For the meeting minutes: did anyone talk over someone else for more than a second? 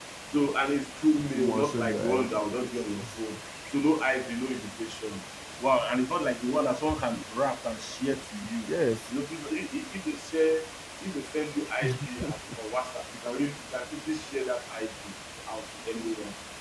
Yes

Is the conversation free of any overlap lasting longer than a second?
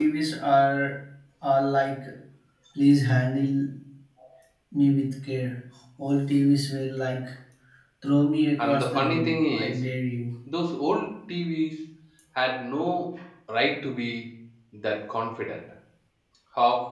No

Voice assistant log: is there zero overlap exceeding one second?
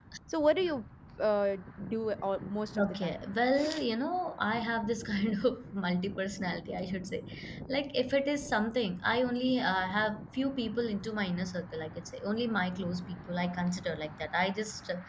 Yes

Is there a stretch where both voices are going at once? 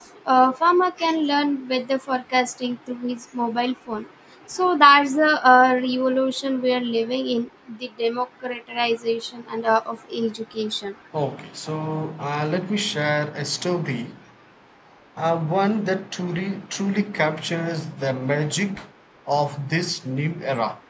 No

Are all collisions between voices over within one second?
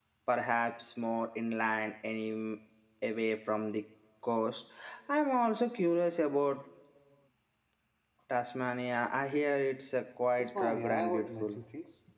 No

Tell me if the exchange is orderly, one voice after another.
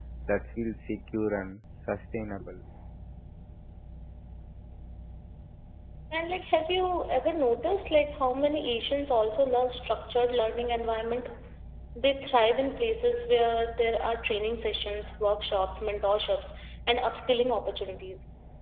Yes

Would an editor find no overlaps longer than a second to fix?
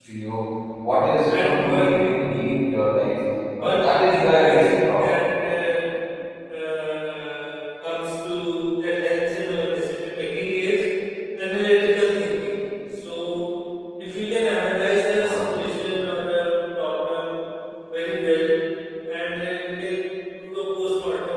No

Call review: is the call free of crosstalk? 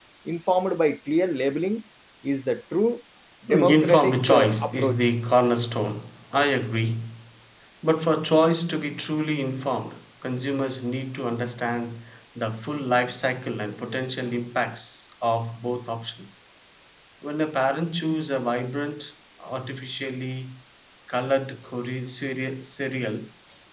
No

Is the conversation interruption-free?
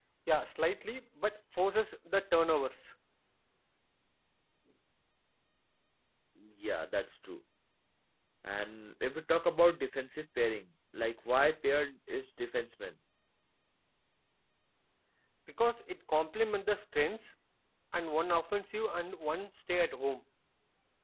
Yes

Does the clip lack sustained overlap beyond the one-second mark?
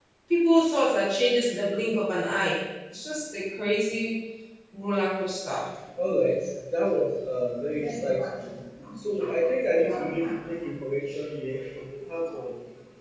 Yes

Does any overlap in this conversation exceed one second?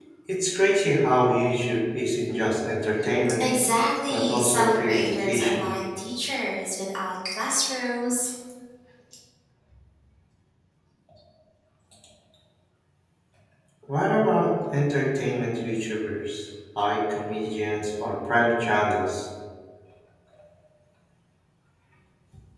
Yes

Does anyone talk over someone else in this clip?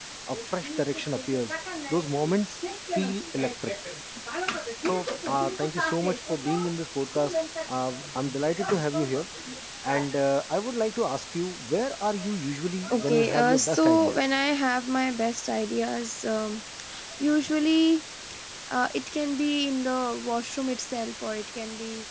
Yes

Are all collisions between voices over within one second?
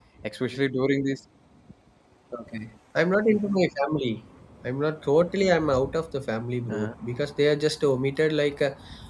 Yes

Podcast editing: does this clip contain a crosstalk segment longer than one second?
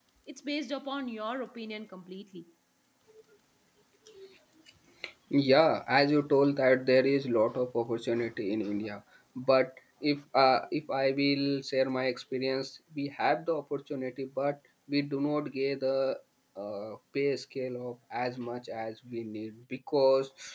No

